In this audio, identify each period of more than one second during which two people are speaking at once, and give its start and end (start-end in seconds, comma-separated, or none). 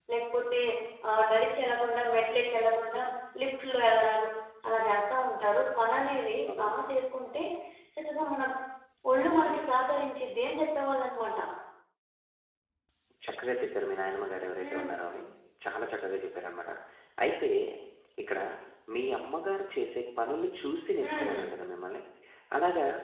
none